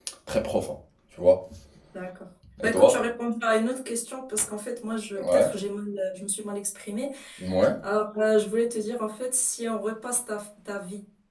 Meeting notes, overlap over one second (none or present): none